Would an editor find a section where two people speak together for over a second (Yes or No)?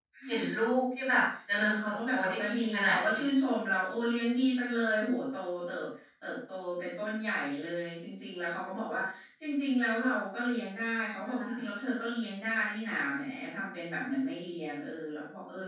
Yes